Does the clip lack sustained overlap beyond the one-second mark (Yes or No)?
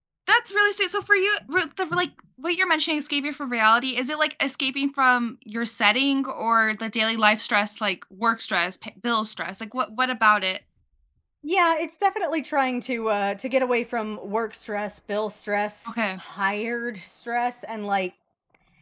Yes